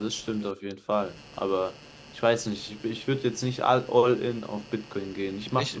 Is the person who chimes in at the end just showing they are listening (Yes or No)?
Yes